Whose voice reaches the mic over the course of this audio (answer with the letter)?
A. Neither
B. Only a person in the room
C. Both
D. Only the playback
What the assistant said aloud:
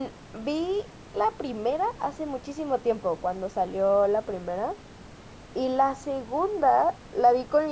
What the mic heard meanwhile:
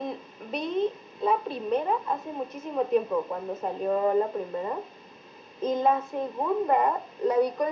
D